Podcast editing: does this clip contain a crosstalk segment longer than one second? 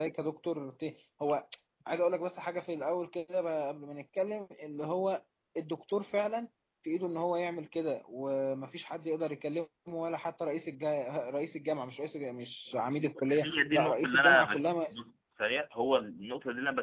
Yes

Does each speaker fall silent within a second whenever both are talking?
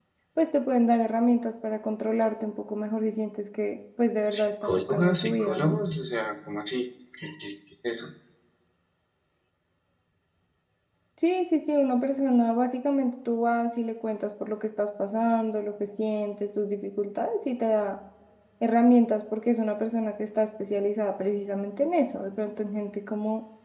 No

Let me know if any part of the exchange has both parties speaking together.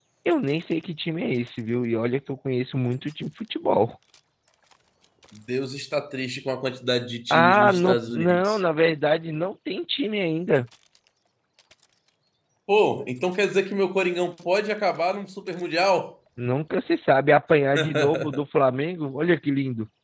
Yes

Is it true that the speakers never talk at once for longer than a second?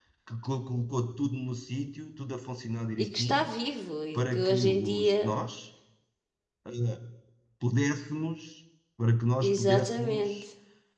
No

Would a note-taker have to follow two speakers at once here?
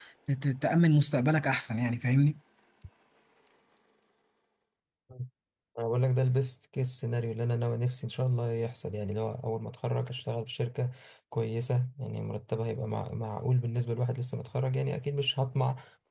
No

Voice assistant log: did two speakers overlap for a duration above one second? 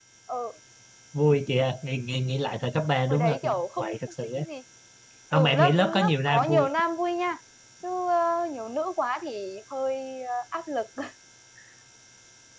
Yes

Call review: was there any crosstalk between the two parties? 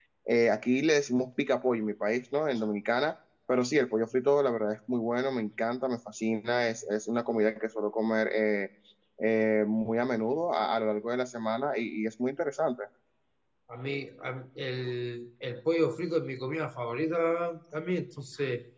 No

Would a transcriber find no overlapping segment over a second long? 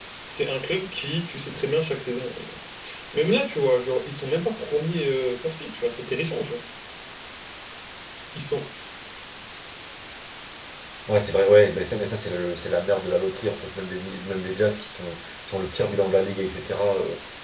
Yes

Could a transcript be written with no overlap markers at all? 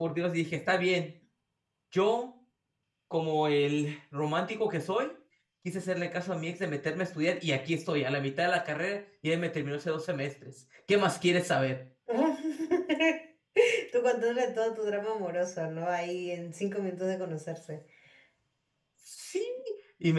Yes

